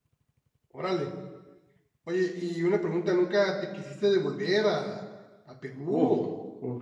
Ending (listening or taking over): taking over